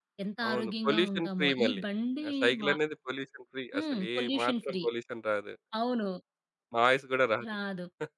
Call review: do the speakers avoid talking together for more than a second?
No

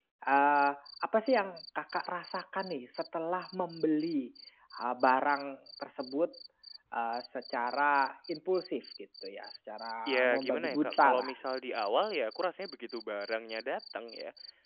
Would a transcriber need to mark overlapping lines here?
Yes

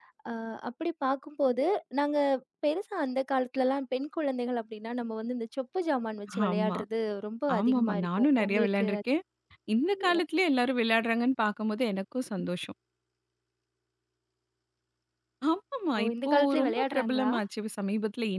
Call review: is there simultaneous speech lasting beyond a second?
Yes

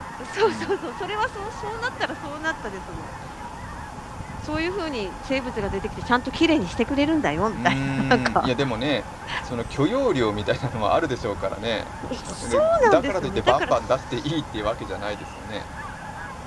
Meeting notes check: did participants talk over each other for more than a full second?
Yes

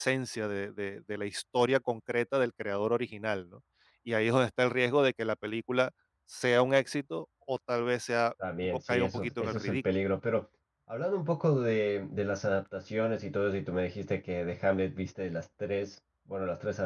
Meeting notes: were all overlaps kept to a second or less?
No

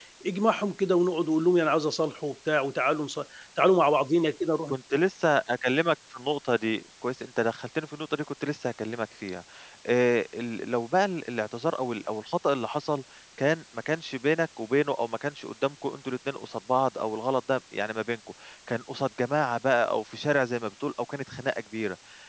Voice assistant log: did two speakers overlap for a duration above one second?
No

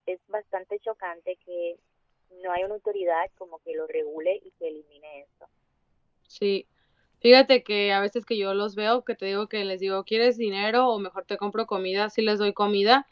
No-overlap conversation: Yes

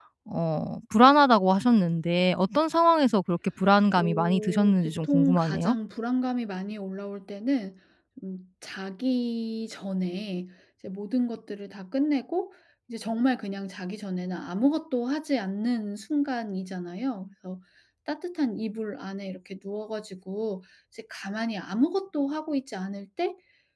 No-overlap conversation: No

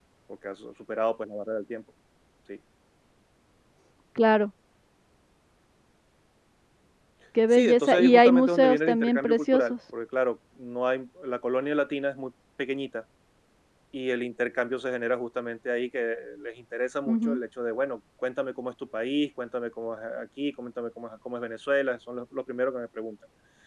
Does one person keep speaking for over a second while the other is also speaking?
Yes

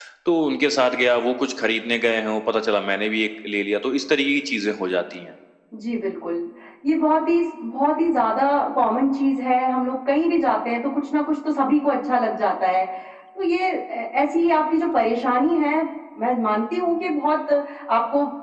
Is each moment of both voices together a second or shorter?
Yes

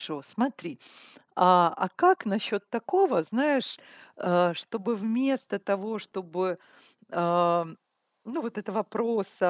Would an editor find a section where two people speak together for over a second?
No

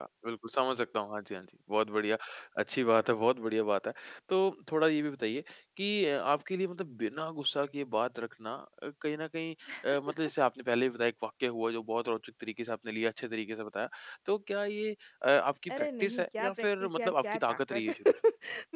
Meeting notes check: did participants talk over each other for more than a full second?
Yes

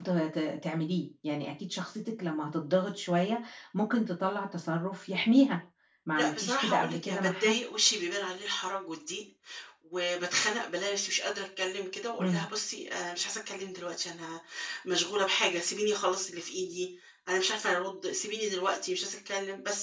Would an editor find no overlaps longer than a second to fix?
No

